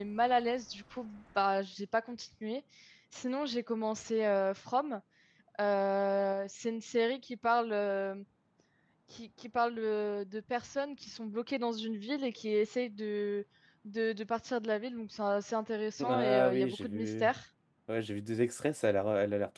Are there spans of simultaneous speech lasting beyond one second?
Yes, from 16.0 s

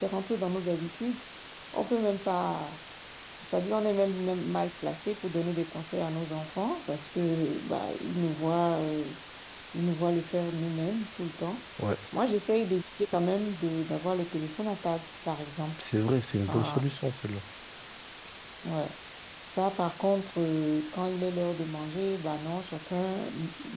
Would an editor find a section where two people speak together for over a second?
No

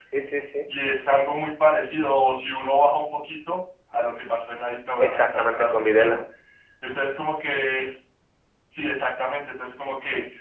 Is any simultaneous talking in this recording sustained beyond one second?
Yes, from 5.0 s

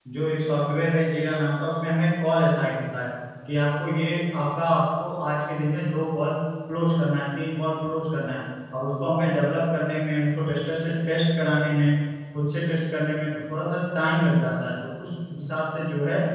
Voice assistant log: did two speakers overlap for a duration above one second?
No

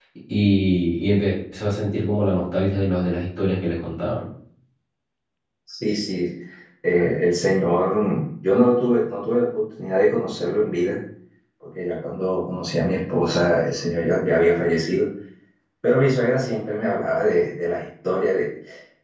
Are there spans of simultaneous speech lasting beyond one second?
No

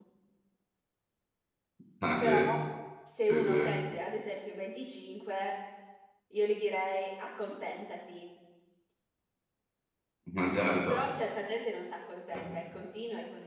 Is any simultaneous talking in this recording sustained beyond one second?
No

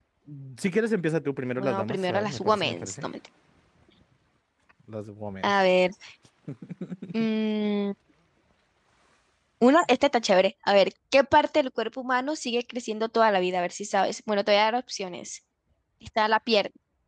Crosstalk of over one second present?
Yes, from 1.6 s

